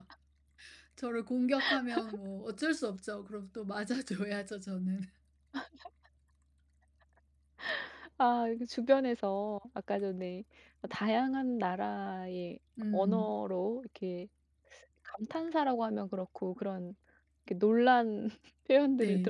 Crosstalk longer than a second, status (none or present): none